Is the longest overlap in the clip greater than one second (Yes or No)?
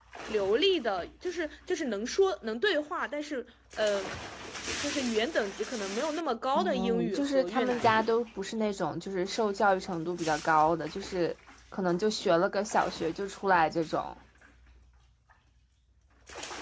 Yes